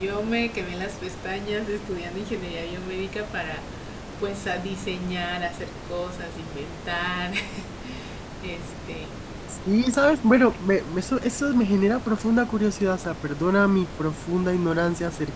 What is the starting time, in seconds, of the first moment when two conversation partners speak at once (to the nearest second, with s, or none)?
none